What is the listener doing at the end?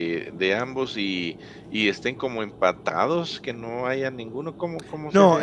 taking over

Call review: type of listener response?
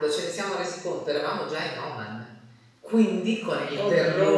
listening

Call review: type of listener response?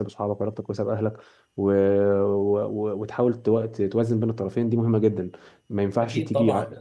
taking over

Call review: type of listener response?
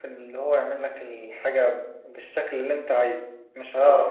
listening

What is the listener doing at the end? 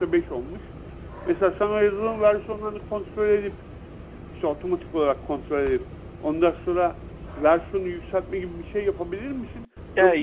listening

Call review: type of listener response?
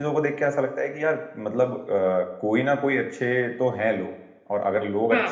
listening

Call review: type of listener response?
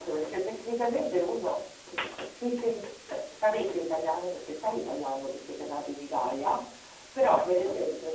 listening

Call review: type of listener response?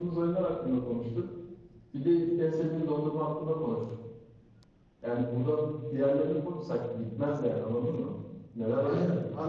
taking over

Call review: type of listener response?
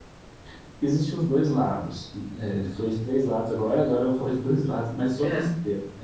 listening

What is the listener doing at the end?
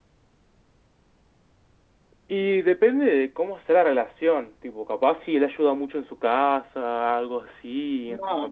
taking over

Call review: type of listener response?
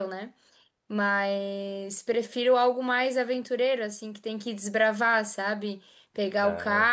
listening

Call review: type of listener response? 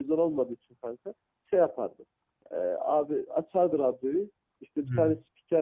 listening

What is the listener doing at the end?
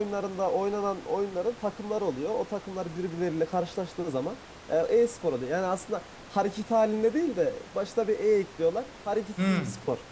taking over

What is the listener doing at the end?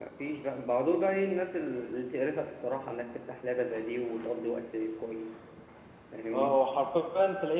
taking over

